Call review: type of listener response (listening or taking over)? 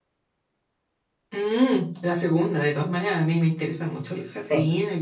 listening